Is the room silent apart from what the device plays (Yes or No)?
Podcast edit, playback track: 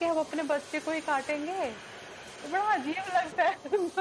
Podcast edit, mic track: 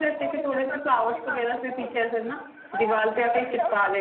No